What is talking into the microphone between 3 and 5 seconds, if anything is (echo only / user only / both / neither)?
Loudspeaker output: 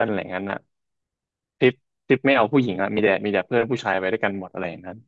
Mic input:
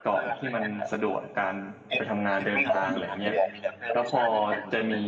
both